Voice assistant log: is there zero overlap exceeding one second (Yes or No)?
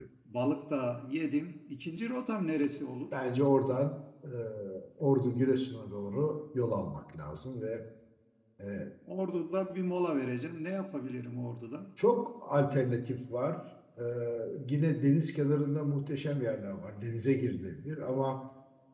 Yes